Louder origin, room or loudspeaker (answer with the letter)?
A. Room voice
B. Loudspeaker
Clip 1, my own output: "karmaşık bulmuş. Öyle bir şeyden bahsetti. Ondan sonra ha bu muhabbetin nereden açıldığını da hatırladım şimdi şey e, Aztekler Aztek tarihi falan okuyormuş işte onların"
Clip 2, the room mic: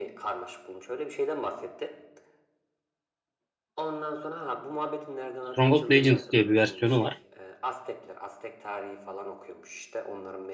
A